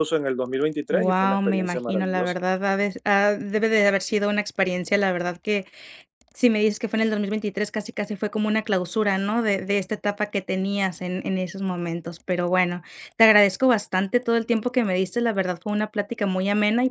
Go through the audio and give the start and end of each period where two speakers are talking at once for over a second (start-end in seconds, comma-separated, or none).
0.9-2.4